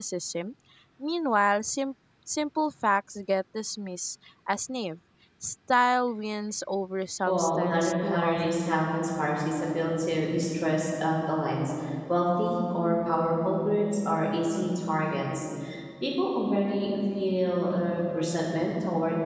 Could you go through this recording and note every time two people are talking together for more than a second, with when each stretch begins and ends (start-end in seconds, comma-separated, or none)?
7.2-8.7